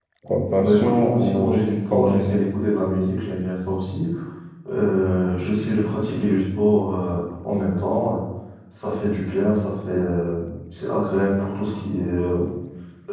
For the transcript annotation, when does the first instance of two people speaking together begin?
0.6 s

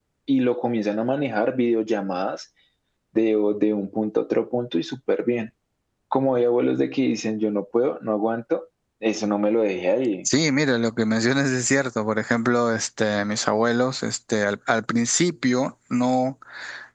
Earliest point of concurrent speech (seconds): none

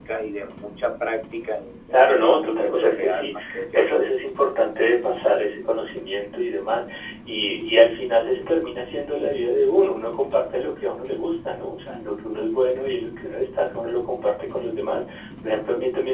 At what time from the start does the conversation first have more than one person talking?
1.9 s

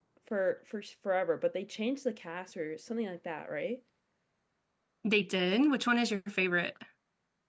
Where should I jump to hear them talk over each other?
none

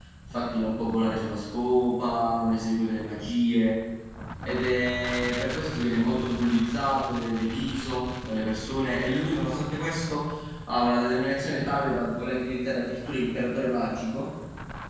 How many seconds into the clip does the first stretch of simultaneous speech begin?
none

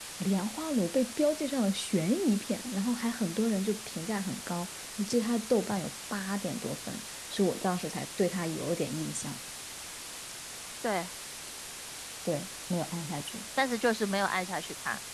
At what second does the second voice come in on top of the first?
none

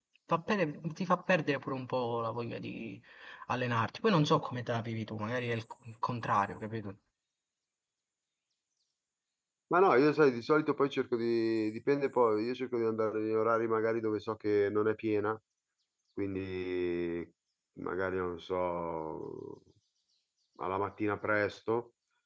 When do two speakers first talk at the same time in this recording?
none

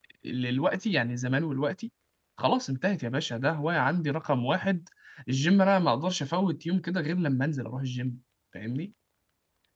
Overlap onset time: none

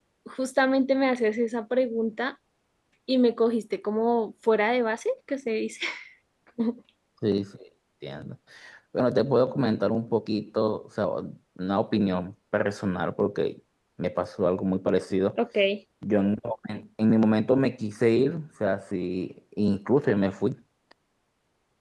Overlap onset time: none

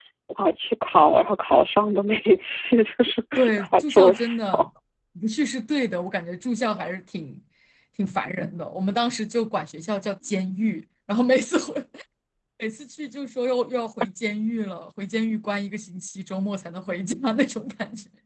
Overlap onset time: 3.4 s

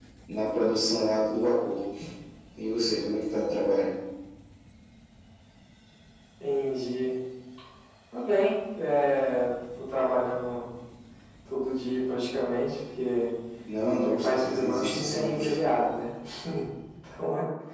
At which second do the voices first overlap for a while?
14.0 s

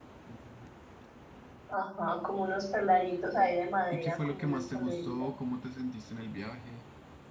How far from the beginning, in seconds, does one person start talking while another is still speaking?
3.9 s

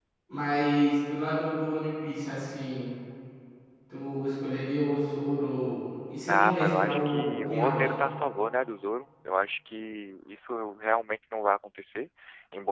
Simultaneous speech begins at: 6.3 s

